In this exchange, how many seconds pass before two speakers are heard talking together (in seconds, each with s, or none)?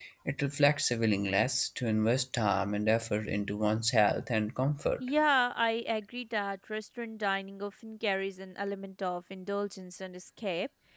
none